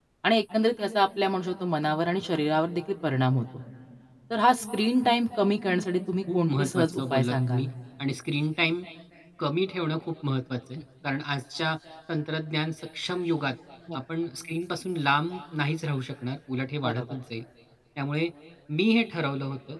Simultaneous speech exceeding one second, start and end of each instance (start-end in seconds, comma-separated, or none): 6.3-7.7